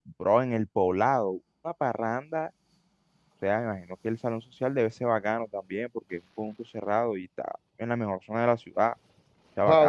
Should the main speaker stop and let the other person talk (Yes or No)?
Yes